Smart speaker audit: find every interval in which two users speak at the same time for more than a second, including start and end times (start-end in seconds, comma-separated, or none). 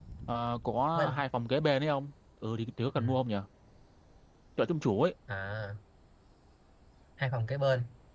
none